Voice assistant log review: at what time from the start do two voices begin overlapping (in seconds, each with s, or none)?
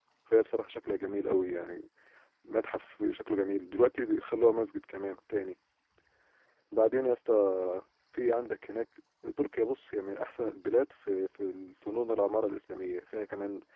none